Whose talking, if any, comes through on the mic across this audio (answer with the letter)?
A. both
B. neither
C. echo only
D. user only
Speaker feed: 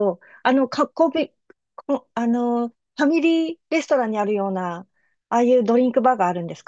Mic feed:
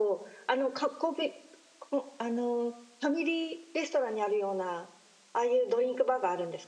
C